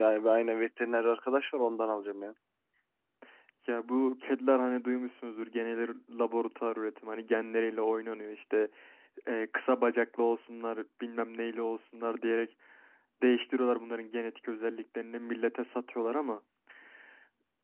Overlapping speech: No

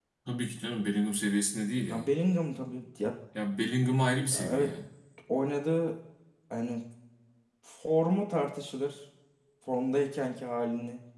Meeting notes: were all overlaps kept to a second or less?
Yes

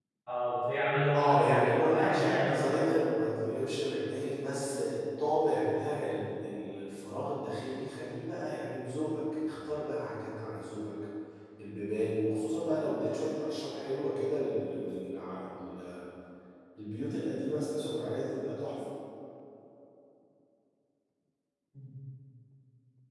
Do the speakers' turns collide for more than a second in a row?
Yes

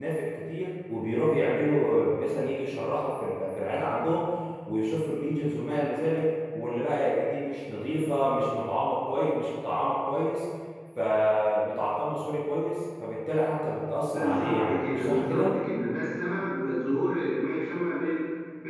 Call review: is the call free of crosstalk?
No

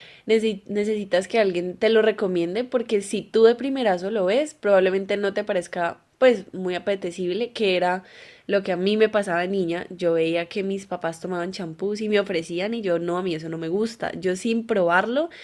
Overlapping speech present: No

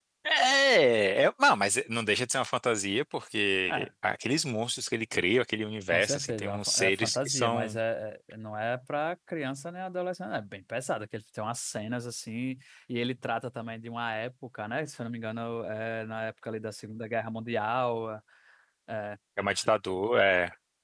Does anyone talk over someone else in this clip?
Yes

